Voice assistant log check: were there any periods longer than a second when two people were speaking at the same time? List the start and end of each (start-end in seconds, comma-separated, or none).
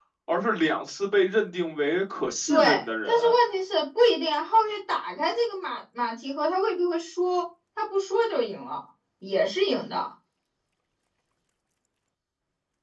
none